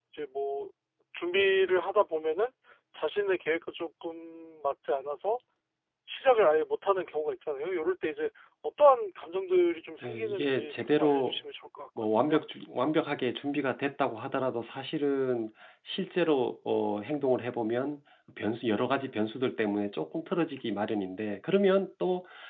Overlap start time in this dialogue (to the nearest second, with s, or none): 10 s